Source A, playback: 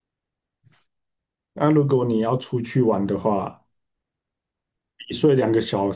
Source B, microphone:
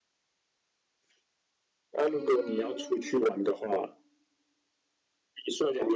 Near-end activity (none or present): present